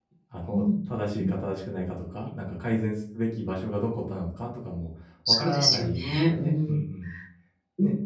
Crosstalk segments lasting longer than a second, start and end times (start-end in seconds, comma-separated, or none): 5.3-6.7